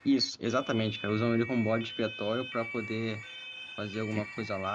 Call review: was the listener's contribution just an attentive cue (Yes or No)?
Yes